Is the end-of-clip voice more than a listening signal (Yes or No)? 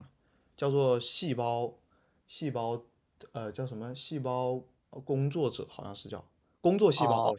Yes